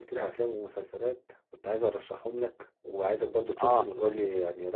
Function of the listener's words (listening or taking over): listening